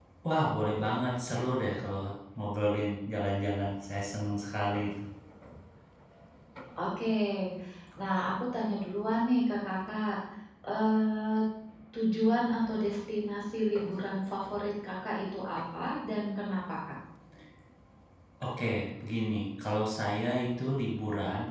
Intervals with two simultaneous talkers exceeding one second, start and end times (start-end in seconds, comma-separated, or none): none